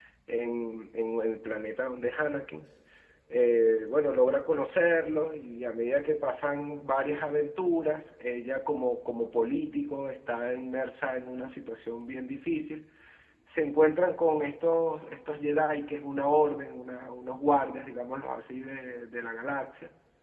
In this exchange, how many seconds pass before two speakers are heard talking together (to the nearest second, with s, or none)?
none